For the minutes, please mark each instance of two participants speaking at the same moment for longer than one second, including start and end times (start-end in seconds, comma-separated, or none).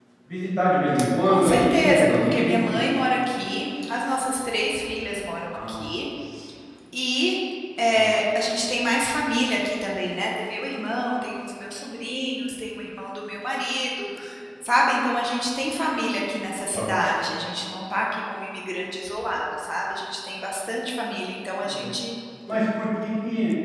1.2-2.9